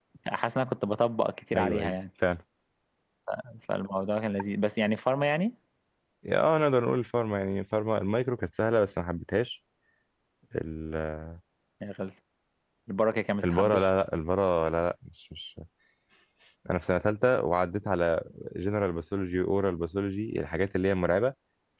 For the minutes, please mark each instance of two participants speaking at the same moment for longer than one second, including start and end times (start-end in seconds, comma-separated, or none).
none